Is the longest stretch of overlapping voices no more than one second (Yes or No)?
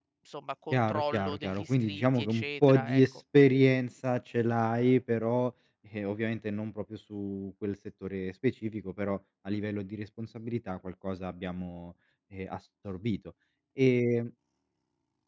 No